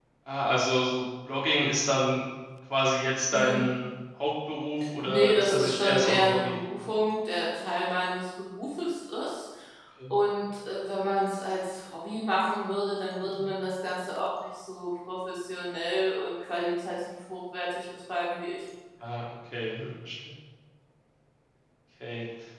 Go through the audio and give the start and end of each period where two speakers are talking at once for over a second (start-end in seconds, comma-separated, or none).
5.0-6.6